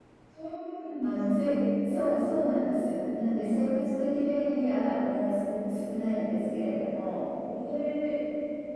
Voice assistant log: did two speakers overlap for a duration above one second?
No

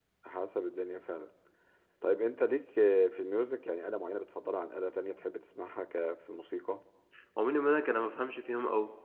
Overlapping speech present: No

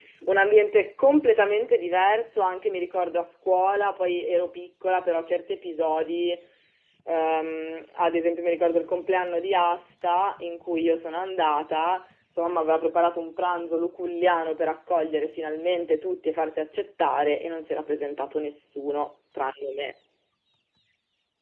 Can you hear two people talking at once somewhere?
No

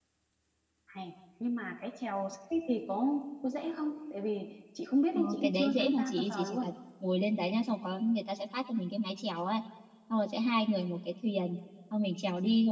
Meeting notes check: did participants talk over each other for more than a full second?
Yes, from 5.1 s

